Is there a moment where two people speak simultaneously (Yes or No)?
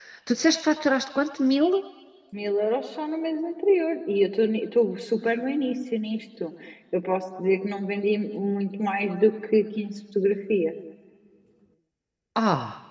No